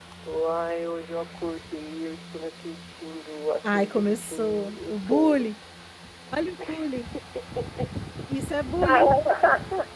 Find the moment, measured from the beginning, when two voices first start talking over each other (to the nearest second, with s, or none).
4 s